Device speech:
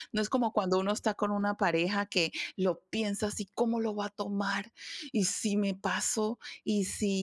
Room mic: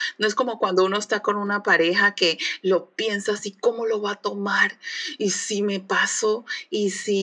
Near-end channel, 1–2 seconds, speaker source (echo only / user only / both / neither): echo only